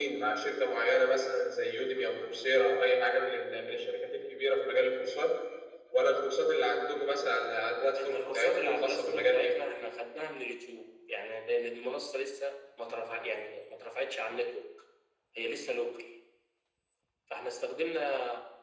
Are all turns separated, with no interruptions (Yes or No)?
No